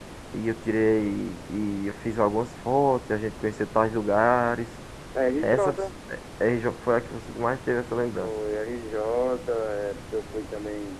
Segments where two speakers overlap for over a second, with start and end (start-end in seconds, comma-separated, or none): none